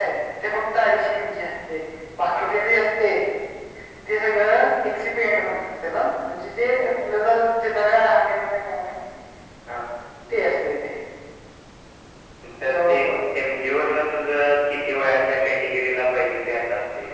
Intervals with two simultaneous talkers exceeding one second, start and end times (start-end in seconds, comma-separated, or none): none